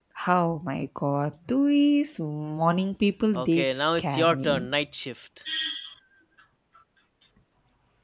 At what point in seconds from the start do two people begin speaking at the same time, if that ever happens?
3.3 s

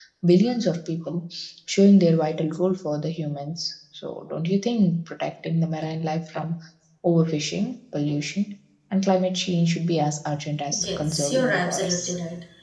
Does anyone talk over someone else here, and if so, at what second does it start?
10.7 s

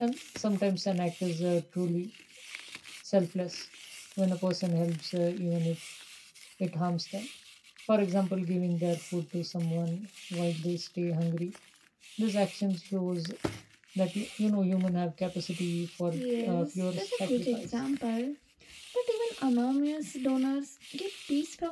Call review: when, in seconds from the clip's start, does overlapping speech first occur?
16.1 s

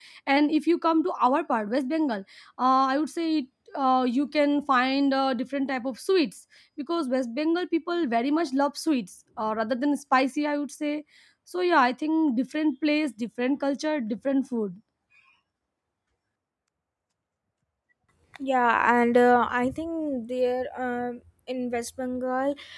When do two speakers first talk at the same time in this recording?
none

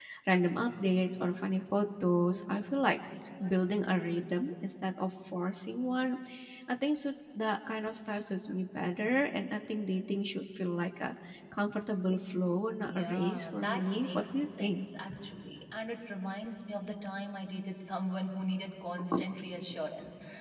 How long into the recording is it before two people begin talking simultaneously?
12.8 s

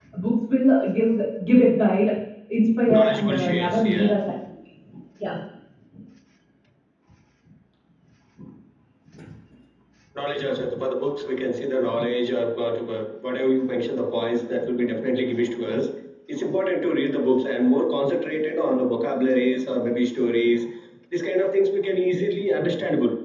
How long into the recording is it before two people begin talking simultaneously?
2.9 s

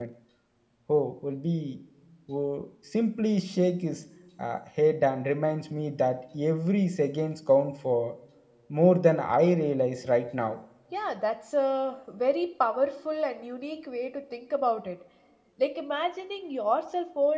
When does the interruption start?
none

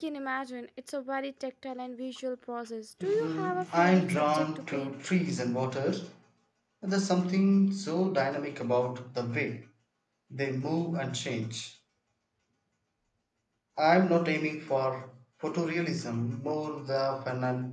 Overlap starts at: 3.0 s

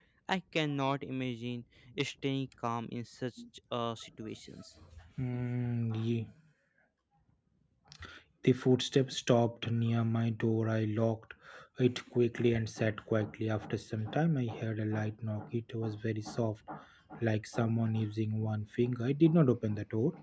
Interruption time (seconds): none

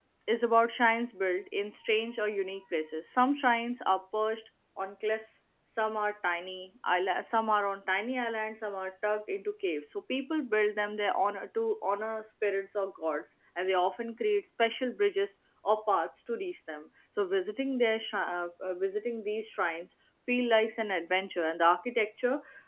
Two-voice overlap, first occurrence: none

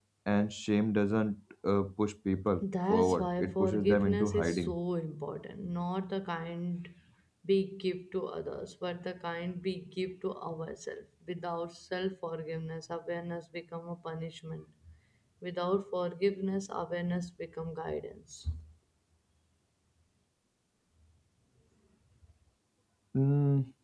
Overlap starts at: 2.9 s

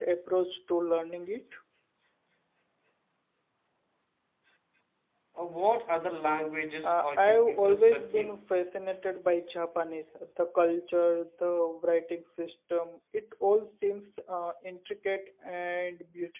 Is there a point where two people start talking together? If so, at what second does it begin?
6.8 s

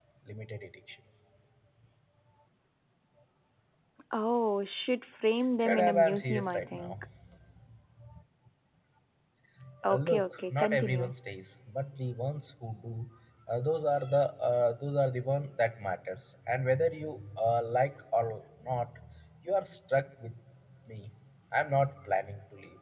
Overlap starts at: 5.6 s

